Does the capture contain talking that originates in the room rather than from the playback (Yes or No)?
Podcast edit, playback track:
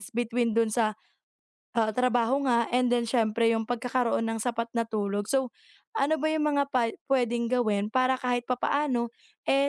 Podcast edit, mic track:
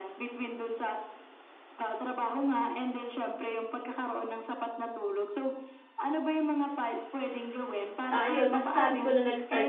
Yes